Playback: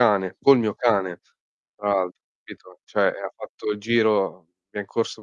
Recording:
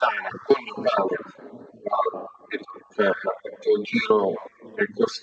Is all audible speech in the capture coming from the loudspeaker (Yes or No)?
Yes